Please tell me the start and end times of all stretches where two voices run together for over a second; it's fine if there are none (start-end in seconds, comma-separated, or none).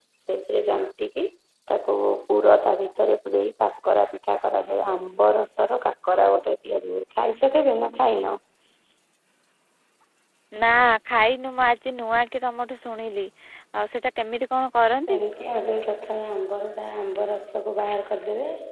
none